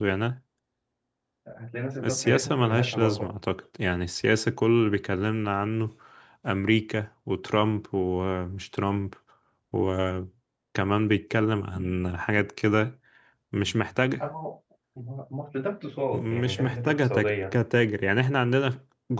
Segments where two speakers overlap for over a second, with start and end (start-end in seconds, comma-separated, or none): 2.0-3.3, 16.1-17.6